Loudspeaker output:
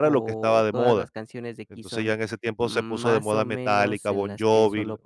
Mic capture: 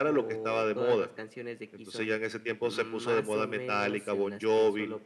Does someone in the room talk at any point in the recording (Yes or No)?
No